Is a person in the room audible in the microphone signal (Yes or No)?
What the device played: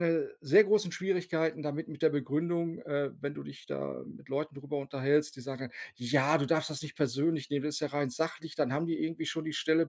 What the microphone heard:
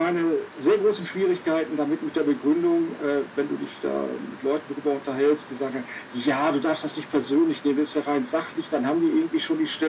No